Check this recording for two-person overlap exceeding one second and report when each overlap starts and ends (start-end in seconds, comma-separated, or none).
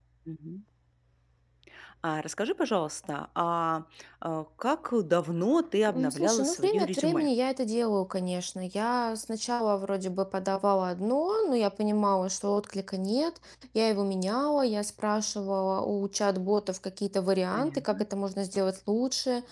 5.9-7.3